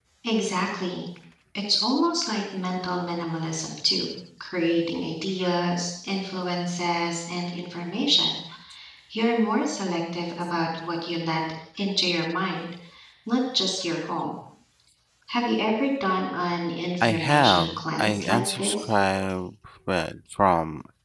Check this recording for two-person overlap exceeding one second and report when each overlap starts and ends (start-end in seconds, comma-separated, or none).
17.0-18.8